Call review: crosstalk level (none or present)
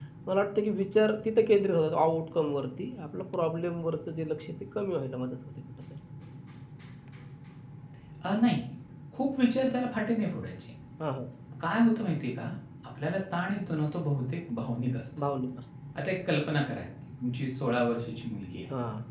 none